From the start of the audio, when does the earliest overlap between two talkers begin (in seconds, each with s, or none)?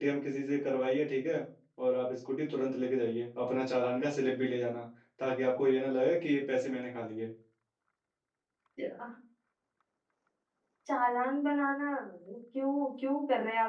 none